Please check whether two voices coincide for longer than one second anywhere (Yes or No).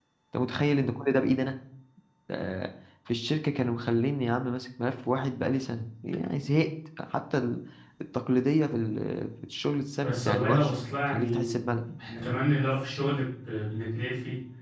Yes